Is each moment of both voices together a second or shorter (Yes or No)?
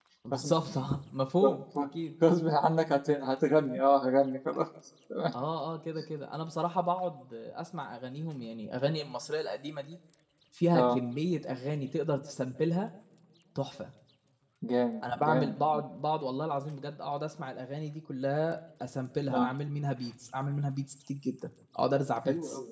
Yes